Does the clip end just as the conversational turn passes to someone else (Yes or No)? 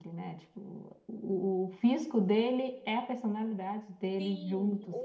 Yes